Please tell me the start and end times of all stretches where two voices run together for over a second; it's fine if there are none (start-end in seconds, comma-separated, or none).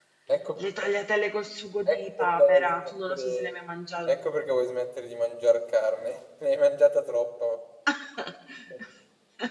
1.9-3.5